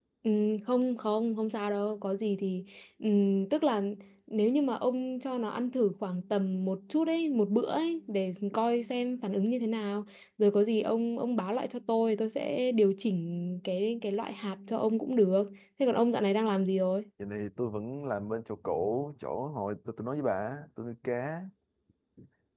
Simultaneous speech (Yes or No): No